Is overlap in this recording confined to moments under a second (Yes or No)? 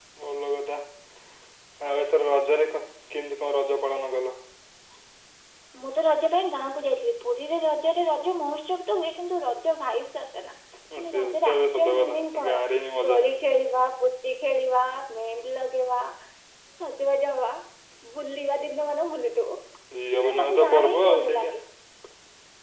No